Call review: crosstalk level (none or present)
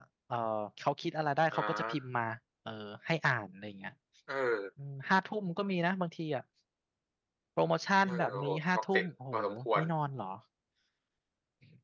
present